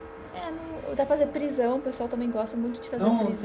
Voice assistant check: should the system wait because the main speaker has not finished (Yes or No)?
No